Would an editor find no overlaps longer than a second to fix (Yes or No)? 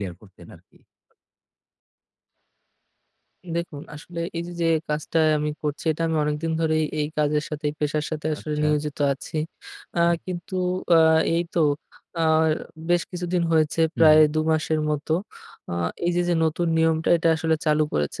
Yes